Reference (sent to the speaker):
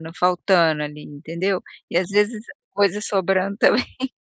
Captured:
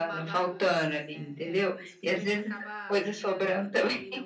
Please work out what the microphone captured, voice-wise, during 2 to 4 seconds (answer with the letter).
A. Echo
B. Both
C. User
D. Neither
B